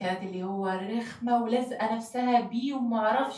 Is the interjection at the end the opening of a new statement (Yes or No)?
No